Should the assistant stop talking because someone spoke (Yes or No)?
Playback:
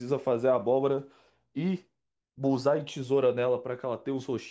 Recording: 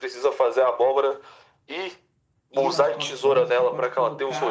Yes